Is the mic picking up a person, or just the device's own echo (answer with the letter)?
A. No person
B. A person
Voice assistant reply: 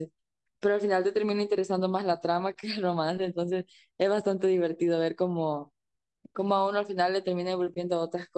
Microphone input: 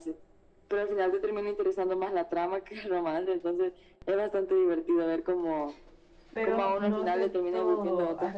B